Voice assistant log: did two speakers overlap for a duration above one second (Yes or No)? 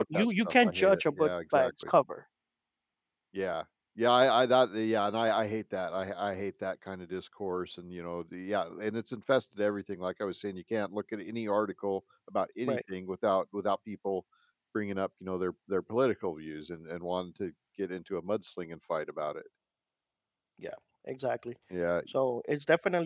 Yes